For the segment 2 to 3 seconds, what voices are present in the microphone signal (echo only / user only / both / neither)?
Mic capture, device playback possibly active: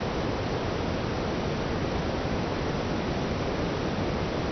neither